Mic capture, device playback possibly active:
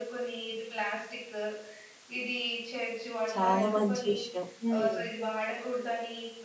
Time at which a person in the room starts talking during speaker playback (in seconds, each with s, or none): 3.3 s